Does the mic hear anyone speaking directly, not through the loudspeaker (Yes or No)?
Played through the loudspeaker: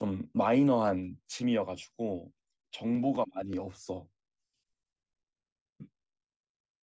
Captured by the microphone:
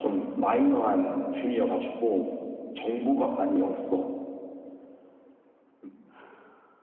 No